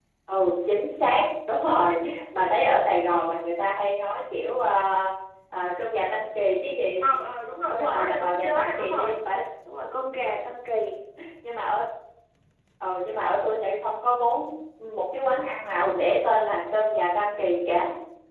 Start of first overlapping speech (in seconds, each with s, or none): 7.7 s